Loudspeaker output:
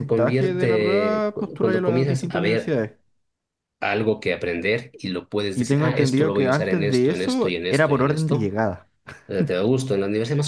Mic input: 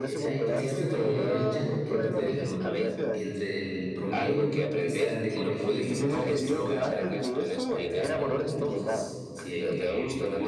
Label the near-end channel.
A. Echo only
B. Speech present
B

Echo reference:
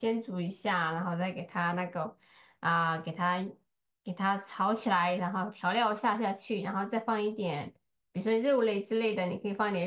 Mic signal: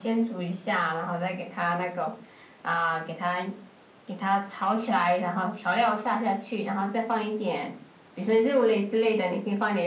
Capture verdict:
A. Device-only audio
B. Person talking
A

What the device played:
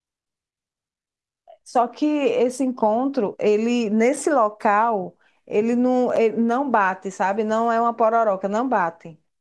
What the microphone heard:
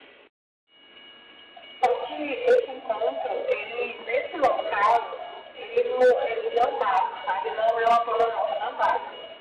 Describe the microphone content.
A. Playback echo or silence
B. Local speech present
A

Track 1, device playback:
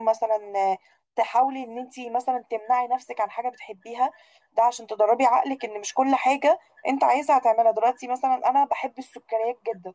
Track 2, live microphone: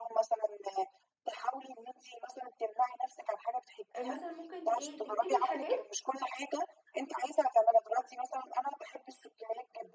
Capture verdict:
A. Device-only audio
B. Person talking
B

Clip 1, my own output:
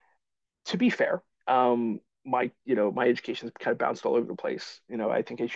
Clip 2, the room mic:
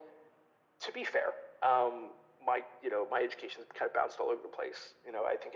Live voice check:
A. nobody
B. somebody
A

